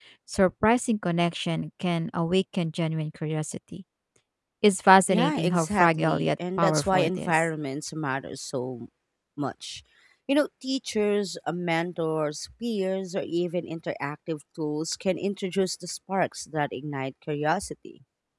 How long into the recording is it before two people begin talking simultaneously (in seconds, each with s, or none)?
5.1 s